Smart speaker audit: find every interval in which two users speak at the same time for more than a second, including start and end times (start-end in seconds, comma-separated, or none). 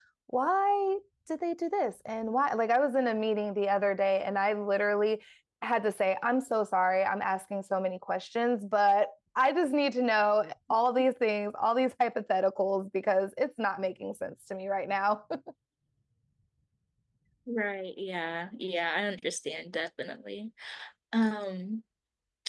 none